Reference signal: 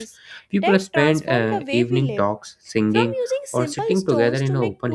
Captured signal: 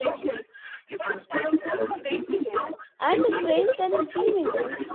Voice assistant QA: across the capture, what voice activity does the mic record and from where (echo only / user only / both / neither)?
both